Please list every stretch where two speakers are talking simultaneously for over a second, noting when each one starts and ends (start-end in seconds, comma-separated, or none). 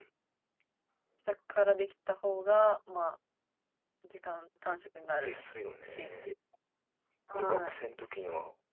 none